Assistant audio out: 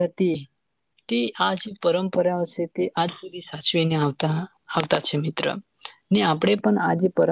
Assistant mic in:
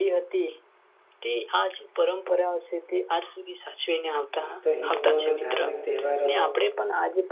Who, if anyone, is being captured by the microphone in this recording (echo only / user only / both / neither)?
both